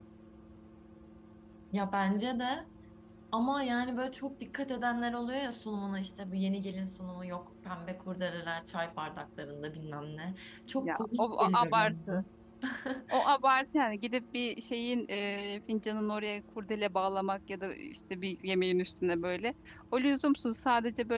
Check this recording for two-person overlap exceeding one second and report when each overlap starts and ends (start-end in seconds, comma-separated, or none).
10.8-12.2